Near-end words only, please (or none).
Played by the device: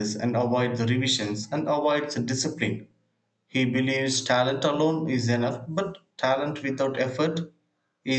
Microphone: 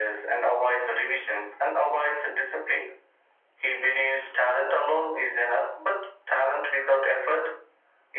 none